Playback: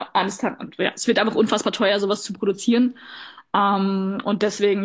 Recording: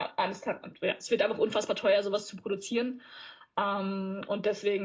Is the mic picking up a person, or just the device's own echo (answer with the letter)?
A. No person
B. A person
A